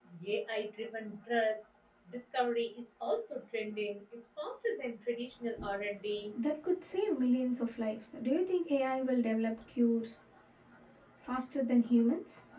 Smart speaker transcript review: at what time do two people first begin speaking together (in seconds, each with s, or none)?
none